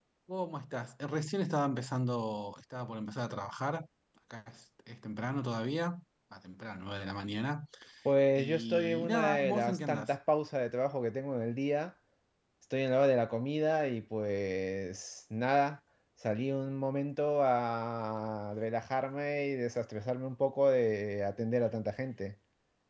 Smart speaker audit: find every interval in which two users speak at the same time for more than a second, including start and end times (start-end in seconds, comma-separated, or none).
8.4-10.1